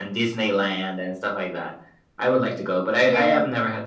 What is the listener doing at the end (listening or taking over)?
listening